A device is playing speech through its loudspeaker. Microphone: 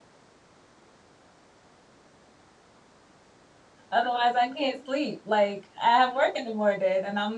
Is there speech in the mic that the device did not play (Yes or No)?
Yes